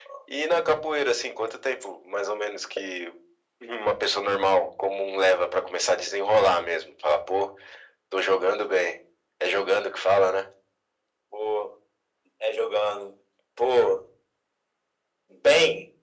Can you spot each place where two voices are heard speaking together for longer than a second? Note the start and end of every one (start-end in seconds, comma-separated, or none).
none